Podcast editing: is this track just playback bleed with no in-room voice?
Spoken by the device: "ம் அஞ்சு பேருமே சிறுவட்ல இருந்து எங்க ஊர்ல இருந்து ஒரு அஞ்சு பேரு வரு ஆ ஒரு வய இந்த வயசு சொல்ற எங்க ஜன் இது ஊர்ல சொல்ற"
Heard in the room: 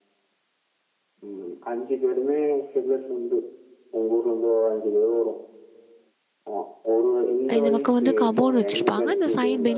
No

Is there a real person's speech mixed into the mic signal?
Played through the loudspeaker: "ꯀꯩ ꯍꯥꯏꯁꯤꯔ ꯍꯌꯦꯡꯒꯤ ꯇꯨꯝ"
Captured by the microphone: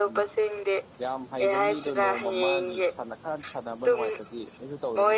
Yes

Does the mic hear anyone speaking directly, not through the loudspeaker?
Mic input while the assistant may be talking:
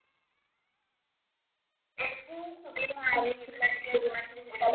No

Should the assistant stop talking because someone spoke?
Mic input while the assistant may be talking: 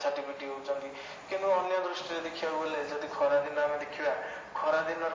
No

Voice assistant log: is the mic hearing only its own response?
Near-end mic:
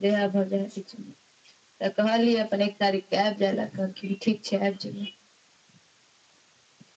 Yes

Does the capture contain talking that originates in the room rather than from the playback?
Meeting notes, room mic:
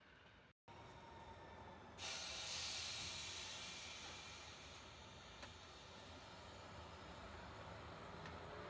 No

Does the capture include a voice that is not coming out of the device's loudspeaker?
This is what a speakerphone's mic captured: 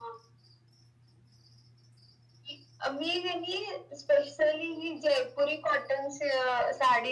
No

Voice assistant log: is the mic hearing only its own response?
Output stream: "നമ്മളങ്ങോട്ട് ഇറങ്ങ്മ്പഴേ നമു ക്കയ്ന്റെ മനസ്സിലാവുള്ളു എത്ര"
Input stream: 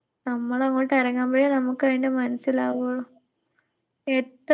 Yes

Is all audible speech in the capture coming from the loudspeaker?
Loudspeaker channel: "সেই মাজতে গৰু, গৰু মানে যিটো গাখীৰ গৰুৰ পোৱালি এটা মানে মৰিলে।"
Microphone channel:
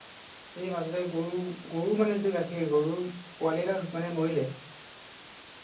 Yes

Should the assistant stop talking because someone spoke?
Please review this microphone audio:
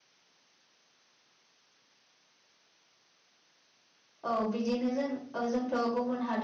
Yes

